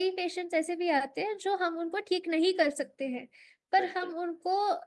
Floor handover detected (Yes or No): No